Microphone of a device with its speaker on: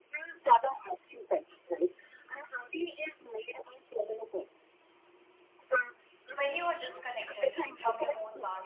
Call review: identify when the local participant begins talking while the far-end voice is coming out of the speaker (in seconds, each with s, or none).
6.3 s